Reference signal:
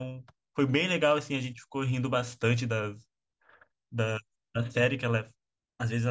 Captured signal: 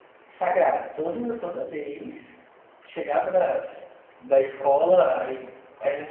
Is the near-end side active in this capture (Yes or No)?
Yes